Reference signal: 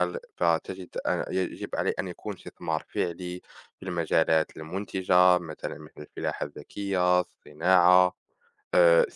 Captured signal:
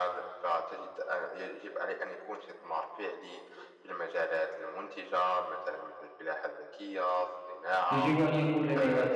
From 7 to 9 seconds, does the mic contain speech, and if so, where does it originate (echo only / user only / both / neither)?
both